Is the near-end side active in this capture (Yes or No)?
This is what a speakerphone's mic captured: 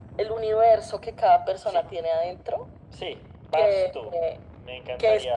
No